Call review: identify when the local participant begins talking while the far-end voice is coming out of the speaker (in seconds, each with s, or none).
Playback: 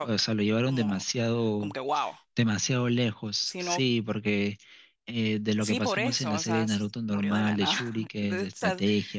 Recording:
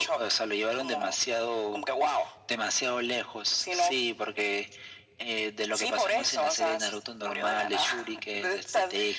none